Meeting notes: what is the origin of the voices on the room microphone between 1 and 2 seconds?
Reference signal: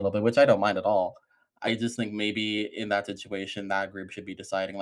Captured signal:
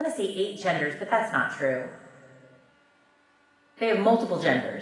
user only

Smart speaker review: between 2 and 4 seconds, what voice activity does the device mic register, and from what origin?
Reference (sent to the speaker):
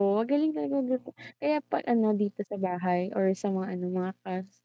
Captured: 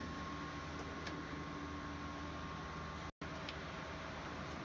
neither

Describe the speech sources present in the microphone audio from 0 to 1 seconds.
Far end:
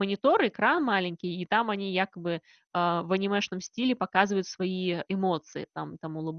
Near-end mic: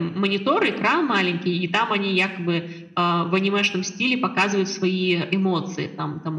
echo only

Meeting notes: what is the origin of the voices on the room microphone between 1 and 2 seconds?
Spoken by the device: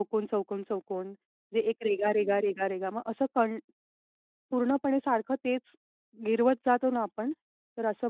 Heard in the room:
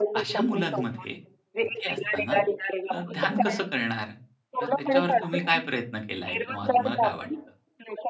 both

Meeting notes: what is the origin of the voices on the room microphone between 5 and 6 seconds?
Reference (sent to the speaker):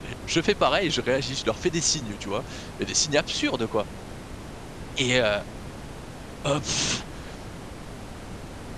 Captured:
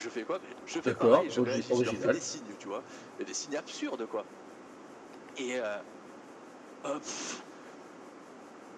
echo only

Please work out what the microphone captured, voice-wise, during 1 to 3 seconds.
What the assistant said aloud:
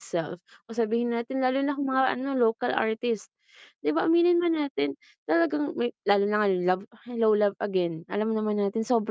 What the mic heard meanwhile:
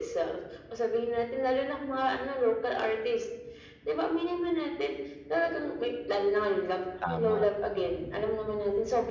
echo only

